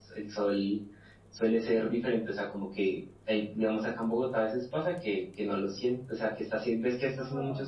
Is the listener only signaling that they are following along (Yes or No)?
Yes